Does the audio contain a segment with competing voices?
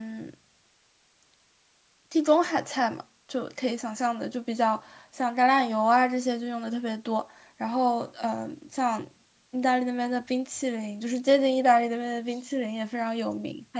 No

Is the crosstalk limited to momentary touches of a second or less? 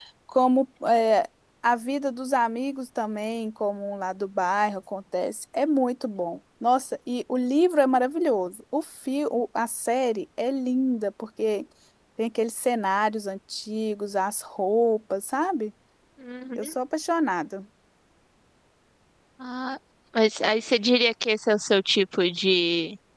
Yes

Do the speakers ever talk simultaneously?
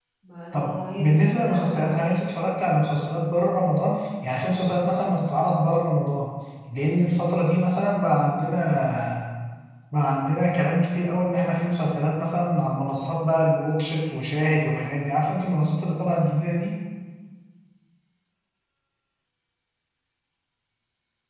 Yes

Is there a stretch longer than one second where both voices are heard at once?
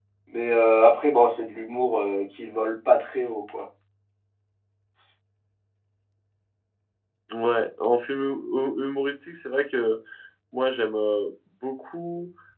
No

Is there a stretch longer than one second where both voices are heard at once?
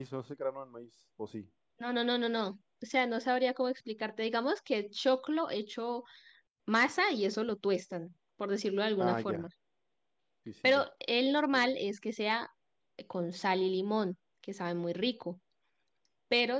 No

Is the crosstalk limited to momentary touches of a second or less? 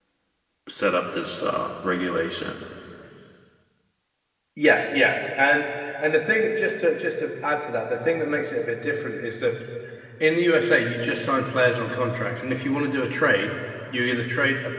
Yes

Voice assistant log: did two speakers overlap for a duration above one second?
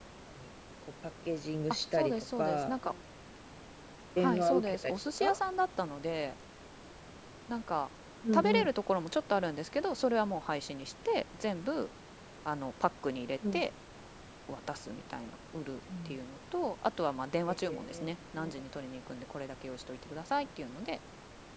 Yes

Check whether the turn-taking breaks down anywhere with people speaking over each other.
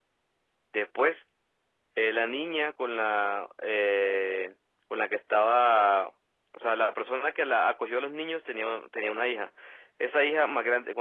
No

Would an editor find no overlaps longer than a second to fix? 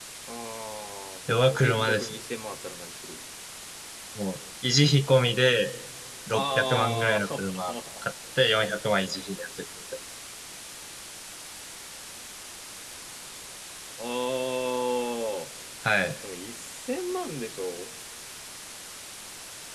No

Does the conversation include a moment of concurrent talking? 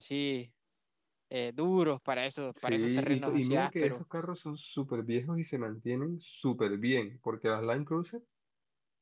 Yes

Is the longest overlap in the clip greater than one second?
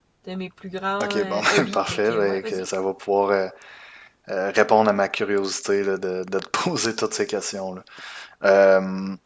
Yes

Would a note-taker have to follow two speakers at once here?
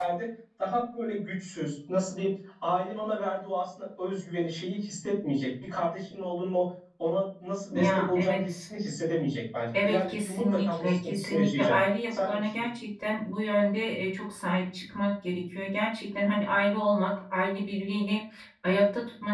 Yes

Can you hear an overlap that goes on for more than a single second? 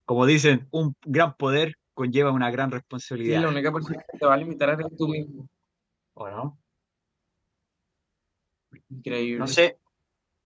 No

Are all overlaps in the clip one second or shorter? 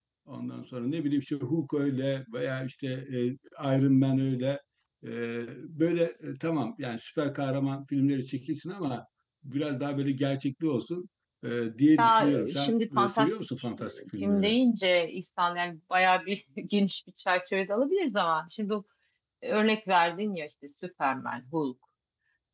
No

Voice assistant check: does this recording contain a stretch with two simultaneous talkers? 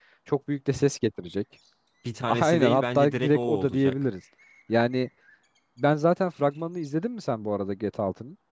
Yes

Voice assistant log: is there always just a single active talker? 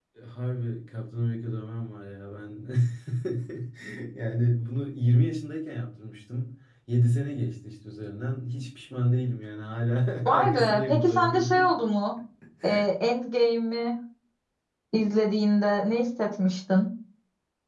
No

